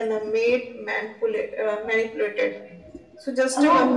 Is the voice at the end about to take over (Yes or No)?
No